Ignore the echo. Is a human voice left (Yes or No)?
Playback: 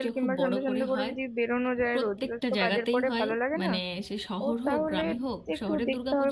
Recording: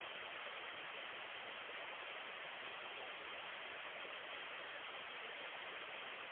No